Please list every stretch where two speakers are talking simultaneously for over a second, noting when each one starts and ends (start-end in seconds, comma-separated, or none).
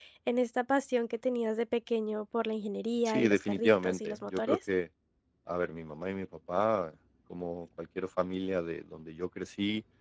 3.0-4.6